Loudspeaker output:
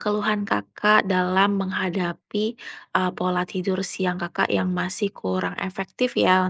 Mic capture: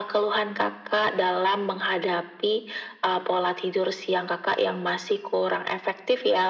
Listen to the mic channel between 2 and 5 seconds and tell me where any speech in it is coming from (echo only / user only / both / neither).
echo only